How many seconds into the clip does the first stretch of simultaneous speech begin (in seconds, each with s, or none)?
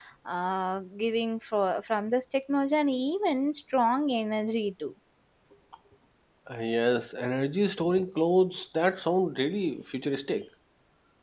none